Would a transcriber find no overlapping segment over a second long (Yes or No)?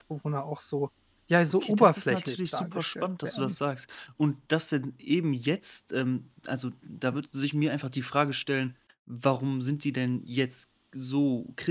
No